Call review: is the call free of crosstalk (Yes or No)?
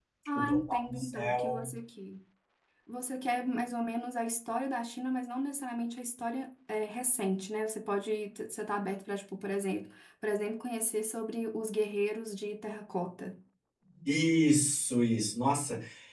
No